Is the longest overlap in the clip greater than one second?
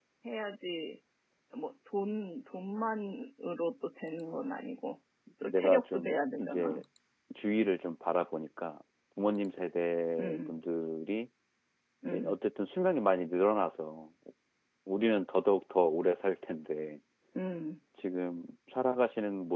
Yes, from 5.4 s

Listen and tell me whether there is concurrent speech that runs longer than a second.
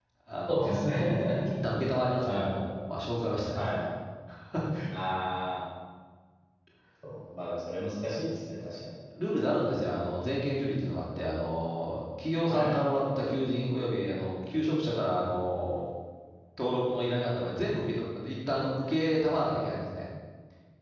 No

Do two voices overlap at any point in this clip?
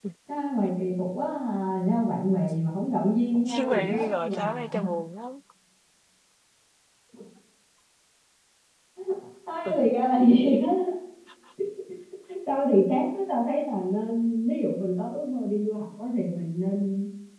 Yes, from 3.5 s

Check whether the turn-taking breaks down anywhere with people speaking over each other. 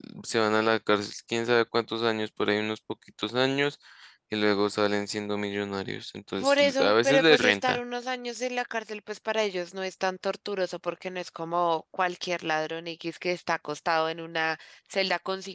Yes, from 6.4 s

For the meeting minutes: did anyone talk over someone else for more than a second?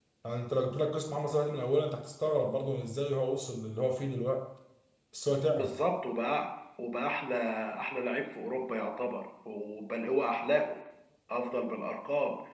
No

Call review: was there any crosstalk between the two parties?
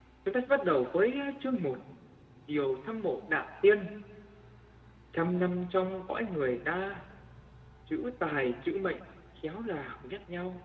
No

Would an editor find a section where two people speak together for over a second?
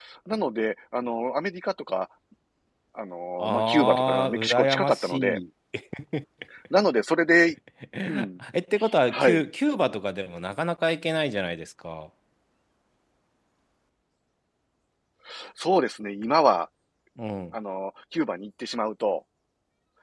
Yes, from 3.4 s

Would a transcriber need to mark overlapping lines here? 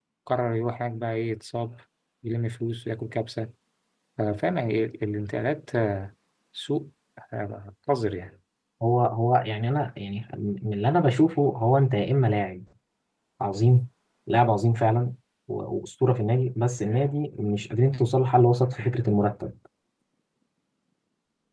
No

